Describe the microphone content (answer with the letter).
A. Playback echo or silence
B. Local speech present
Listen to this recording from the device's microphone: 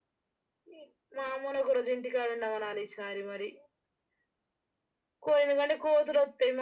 A